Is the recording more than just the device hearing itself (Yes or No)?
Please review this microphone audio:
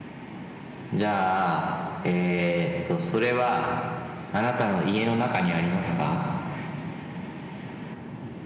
No